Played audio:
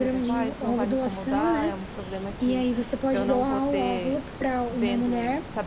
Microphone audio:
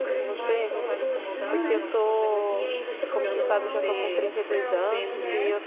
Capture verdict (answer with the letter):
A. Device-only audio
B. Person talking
B